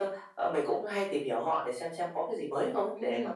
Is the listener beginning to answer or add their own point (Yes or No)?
Yes